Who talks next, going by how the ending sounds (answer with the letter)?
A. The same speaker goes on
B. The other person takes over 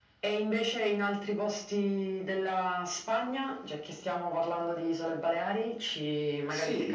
B